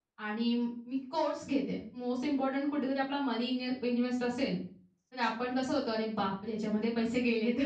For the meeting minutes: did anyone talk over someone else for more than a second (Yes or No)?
No